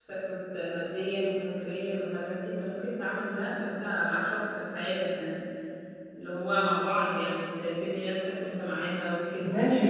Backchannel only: No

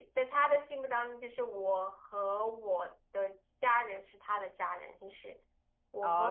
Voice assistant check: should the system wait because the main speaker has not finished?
No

